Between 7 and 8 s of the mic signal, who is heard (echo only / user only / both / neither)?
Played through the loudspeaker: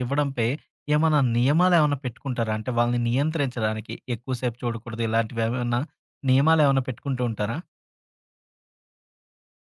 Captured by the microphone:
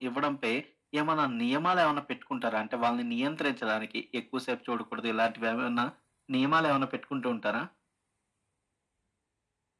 echo only